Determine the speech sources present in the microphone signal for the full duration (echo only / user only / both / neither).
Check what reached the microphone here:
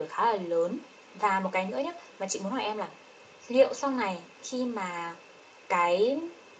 echo only